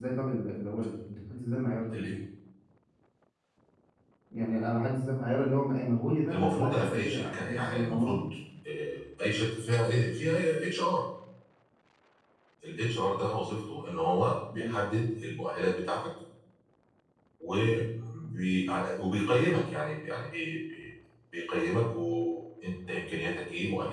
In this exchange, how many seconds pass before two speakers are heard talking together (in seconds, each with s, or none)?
6.3 s